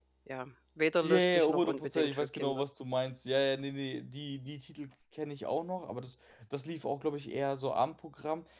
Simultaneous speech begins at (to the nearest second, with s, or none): 1 s